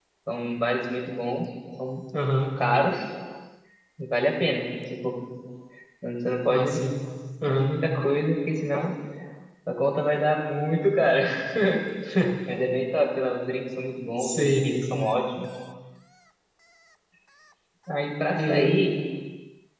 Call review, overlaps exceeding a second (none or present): none